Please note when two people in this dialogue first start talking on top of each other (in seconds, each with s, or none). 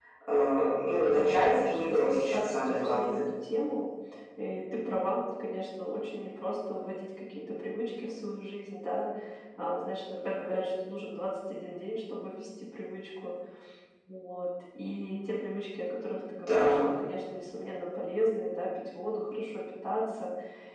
1.0 s